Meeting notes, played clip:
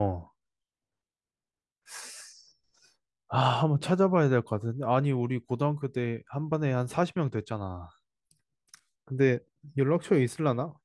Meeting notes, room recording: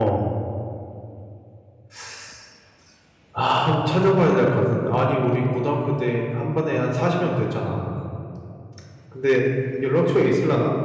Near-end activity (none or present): none